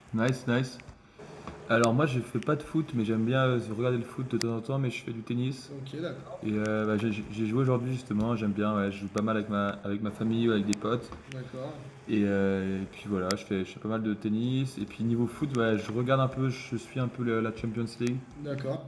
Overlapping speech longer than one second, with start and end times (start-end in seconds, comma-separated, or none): none